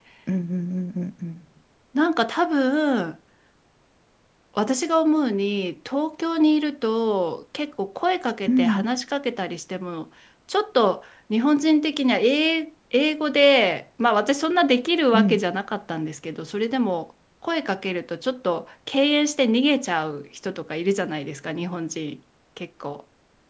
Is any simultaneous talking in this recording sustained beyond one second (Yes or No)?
No